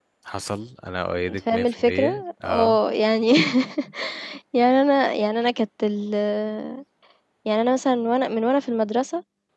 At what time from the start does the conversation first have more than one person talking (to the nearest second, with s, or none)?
1 s